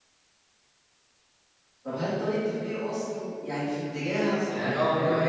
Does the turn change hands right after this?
Yes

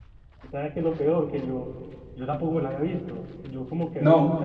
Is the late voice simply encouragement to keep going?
Yes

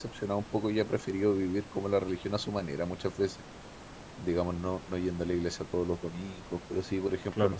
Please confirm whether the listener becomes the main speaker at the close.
No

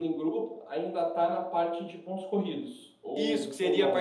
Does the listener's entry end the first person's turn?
Yes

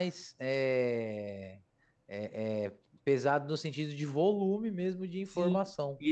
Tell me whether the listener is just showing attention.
No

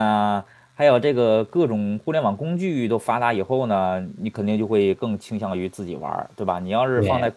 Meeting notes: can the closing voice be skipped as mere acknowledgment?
Yes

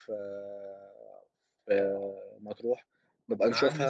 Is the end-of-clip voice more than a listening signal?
Yes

